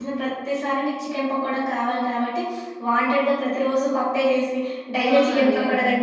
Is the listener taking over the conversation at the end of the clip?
Yes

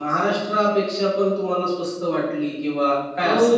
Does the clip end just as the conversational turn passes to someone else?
Yes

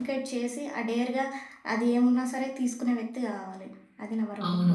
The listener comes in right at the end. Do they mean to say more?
Yes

